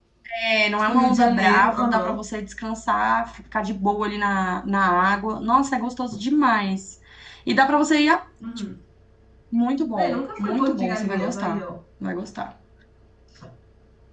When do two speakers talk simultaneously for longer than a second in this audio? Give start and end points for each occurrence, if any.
0.8-2.1, 9.9-11.6

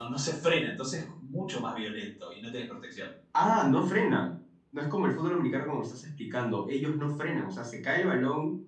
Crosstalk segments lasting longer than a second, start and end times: none

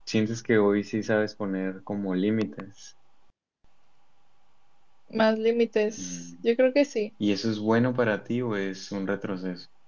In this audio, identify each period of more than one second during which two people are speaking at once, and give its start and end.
none

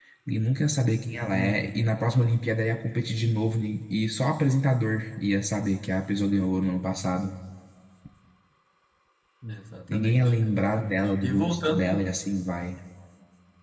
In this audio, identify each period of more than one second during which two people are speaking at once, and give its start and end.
9.9-12.1

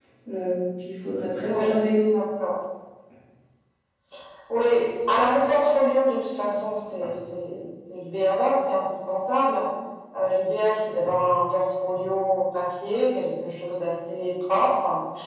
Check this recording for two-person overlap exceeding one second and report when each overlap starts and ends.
none

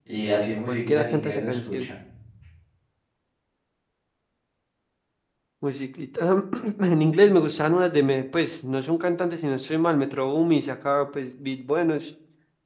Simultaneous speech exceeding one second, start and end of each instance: 0.7-1.9

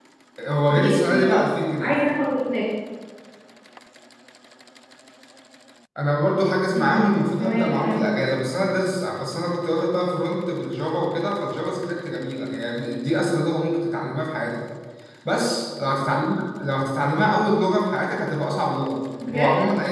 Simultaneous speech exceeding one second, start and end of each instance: 0.7-2.0, 6.8-8.3

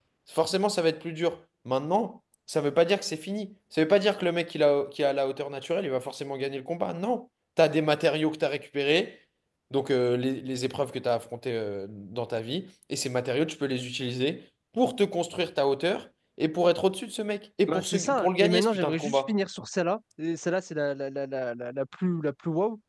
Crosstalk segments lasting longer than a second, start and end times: 17.7-19.3

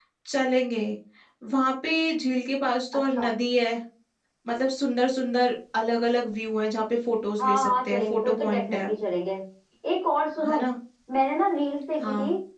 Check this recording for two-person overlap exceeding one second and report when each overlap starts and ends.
7.4-8.8

